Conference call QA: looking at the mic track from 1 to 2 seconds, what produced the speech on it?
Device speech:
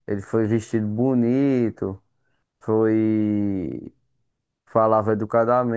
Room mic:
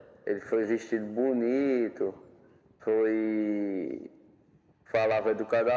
echo only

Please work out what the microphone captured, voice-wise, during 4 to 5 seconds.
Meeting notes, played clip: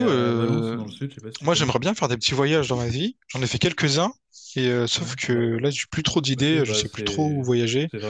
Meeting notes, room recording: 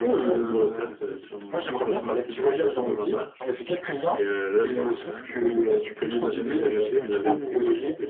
both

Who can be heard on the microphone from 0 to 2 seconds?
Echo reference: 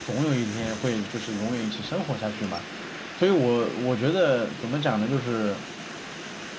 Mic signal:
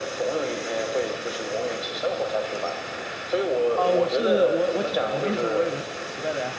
echo only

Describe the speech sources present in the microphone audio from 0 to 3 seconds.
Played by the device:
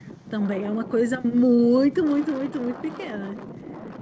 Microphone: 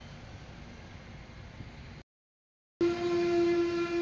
neither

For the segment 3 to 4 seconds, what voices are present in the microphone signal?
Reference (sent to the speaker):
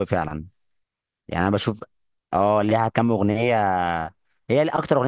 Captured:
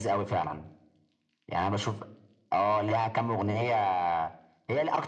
echo only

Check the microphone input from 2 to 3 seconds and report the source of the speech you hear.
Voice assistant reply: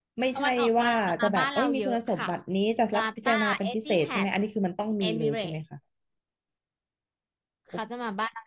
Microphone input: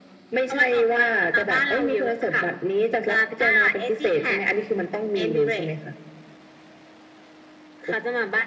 echo only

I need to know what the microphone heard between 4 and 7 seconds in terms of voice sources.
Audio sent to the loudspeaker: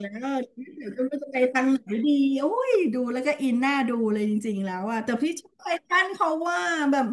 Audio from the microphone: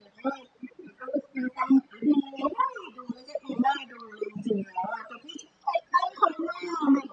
echo only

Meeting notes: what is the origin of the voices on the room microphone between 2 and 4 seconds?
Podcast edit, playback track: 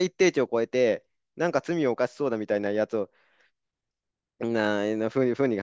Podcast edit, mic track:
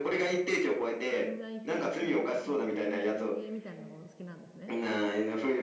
both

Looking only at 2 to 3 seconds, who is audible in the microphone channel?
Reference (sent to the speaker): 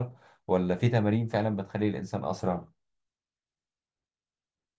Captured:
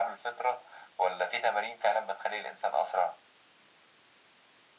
echo only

